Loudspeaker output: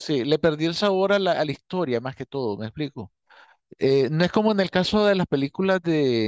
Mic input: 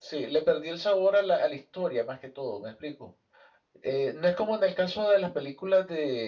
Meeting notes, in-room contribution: none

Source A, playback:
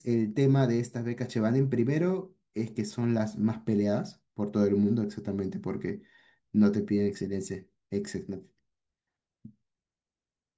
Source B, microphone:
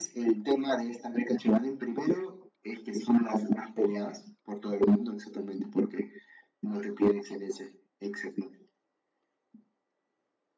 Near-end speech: none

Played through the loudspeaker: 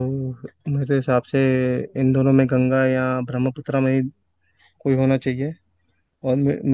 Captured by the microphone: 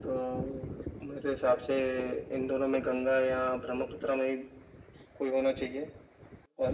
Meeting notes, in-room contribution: none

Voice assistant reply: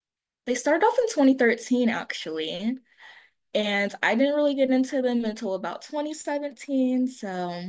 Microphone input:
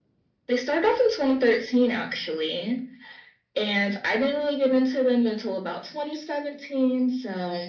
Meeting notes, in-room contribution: none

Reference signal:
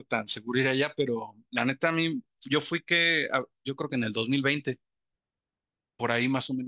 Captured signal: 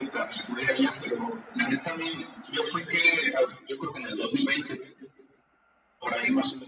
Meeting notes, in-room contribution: none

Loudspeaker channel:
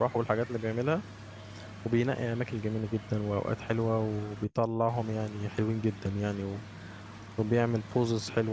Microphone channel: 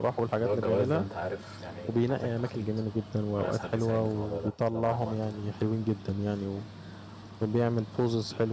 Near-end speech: present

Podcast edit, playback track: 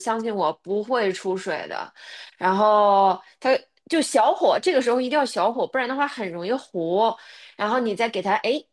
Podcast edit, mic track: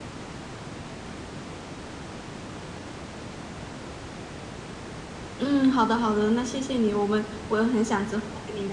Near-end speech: present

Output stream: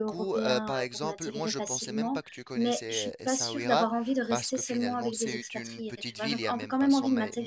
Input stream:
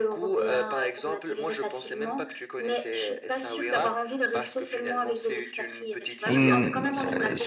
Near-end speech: present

